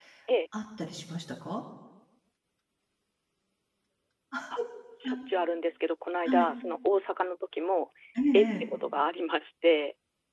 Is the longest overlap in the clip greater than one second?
No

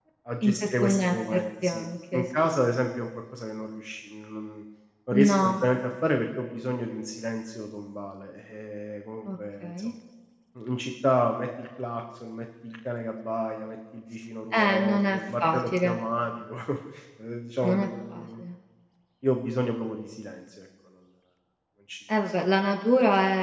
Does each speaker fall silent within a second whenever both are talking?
No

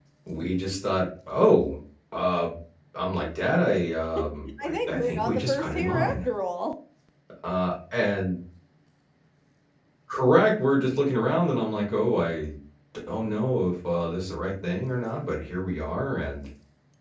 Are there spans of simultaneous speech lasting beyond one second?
Yes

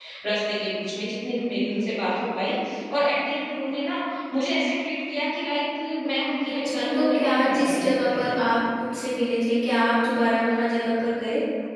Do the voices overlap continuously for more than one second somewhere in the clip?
Yes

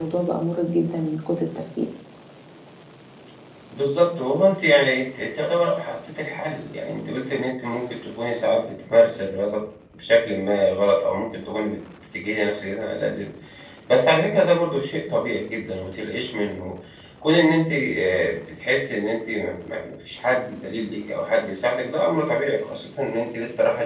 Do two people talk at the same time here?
No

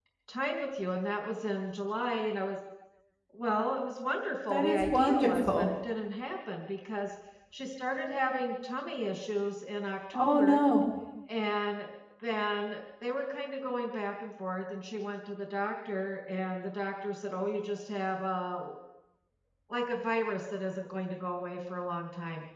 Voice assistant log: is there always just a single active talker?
No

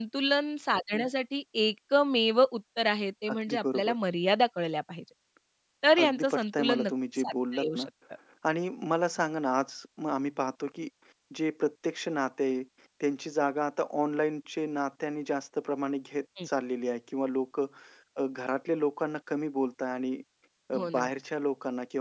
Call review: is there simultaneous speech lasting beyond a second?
Yes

